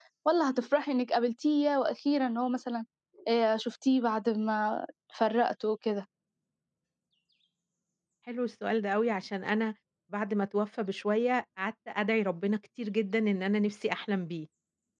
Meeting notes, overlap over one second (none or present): none